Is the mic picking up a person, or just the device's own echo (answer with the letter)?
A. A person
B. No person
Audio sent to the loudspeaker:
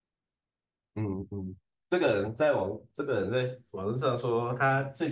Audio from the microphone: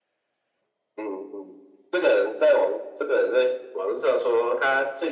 B